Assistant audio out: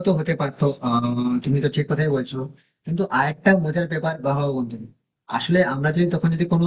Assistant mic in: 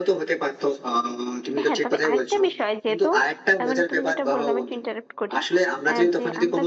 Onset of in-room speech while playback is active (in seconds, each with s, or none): 1.6 s